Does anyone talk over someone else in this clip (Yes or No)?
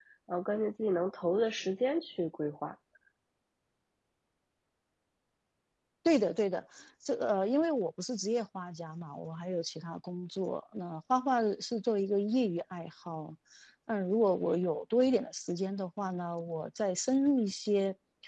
No